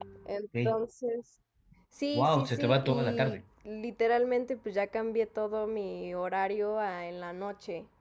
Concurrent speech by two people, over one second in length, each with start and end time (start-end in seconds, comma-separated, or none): 2.1-3.4